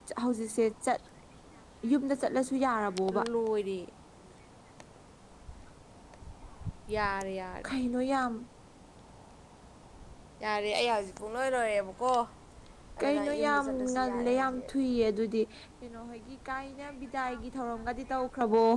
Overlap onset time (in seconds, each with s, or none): 13.0 s